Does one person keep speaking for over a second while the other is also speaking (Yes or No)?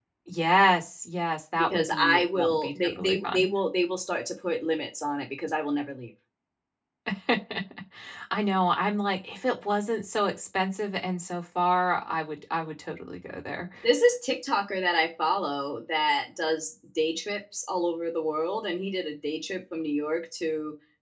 Yes